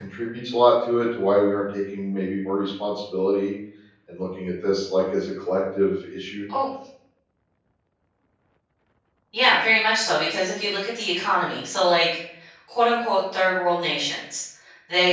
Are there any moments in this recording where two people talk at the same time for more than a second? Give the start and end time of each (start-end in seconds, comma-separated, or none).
none